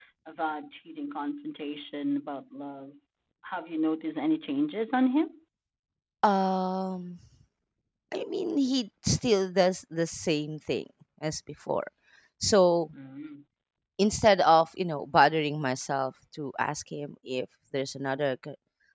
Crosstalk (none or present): none